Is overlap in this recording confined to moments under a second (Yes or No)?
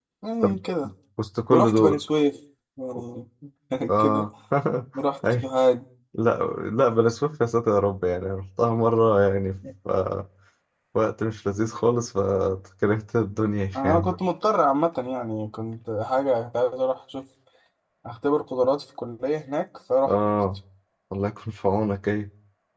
Yes